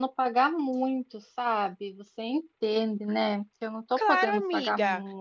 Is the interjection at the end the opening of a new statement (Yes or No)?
Yes